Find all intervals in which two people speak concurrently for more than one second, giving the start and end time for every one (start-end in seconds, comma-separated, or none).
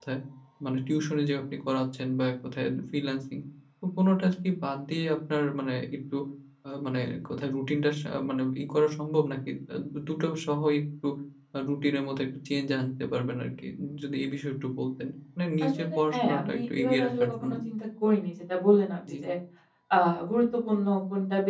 15.6-17.5